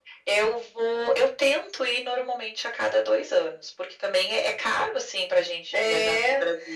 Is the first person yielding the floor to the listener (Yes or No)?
Yes